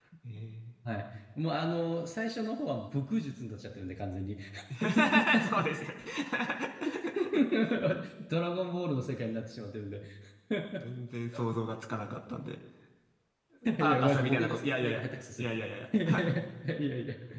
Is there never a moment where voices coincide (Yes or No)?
No